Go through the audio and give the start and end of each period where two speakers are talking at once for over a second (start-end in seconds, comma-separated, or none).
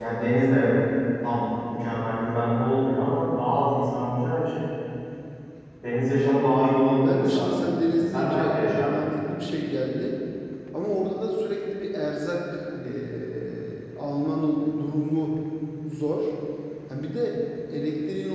7.0-8.9